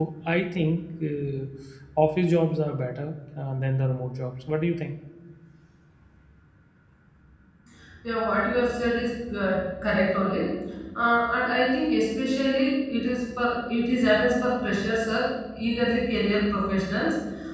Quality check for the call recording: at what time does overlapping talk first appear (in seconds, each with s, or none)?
none